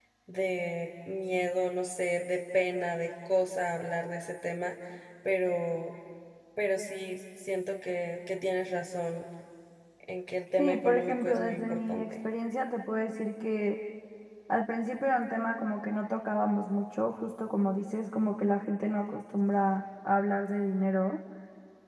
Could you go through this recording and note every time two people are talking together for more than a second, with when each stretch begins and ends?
10.6-12.0

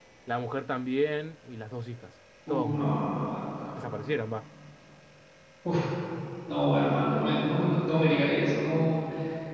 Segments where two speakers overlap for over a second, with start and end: none

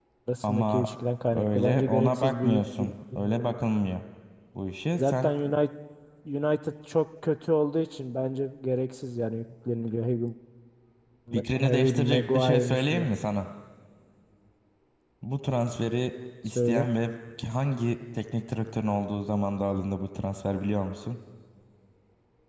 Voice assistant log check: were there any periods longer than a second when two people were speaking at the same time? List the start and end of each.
1.3-3.6, 11.6-13.1

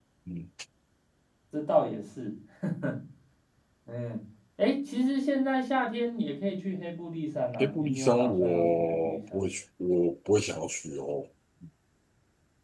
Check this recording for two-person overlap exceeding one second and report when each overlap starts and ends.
7.6-9.5

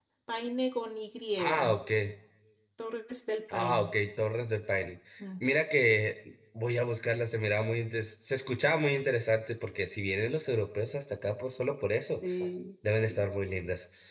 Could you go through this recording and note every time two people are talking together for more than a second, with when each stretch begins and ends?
none

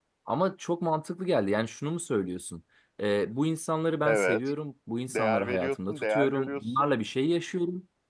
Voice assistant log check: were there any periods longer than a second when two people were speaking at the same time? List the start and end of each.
5.1-7.0

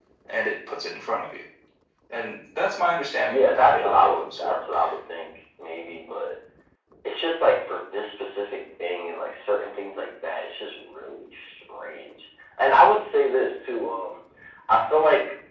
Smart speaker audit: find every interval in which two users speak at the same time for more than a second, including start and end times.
3.3-4.5

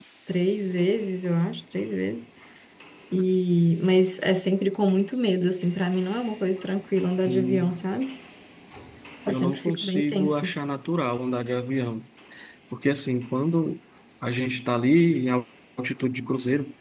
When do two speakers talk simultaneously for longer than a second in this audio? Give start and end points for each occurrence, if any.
9.3-10.5

